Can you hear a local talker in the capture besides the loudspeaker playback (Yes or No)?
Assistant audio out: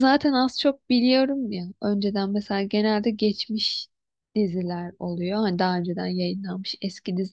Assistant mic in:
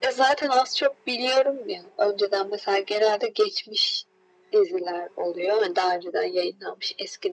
No